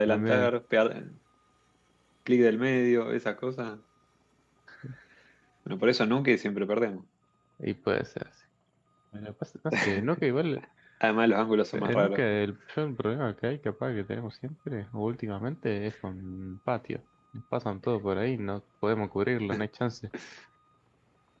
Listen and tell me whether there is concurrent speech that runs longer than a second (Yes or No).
No